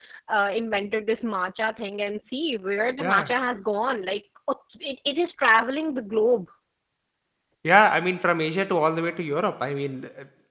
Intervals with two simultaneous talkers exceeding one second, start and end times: none

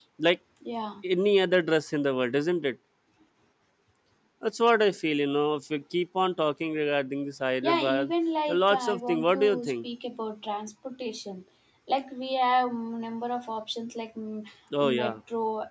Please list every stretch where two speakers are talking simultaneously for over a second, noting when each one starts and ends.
8.5-9.8

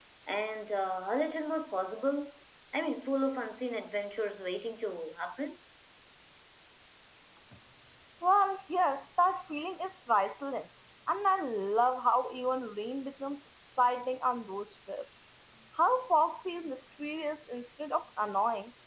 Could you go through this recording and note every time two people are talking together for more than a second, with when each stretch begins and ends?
none

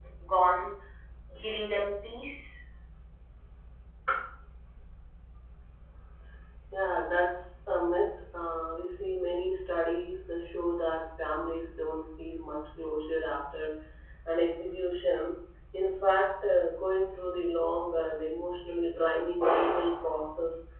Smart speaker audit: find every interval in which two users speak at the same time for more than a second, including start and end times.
none

